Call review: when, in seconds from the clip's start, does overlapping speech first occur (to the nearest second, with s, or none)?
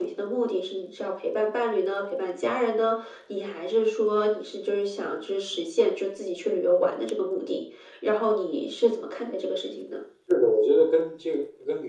none